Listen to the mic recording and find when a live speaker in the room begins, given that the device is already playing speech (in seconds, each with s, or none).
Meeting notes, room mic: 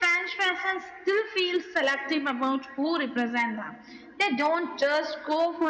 none